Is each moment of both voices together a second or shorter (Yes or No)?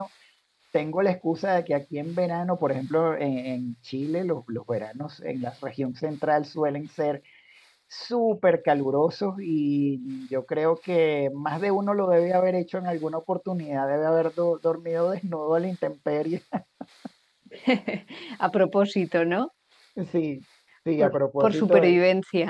Yes